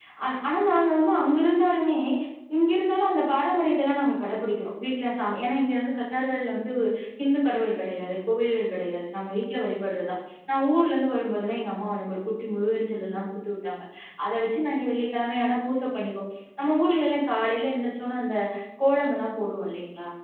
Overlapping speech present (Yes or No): No